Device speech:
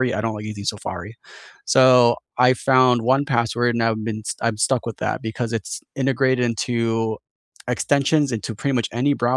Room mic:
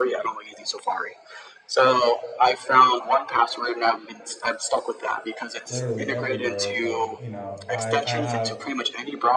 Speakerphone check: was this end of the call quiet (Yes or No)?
No